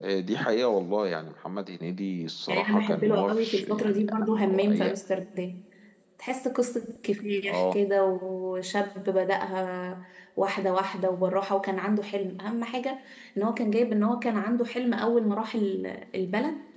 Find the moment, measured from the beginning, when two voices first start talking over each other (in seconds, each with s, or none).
2.5 s